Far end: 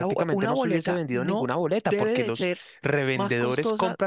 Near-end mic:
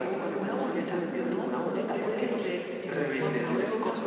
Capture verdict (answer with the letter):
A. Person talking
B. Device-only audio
A